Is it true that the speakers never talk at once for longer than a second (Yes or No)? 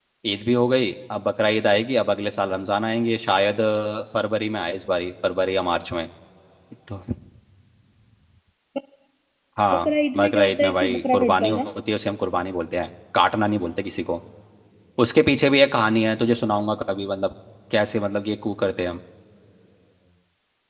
No